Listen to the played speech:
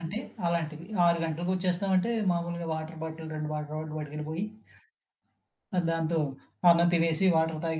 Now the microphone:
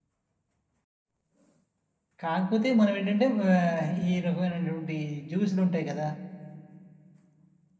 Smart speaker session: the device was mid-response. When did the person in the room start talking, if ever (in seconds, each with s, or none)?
2.2 s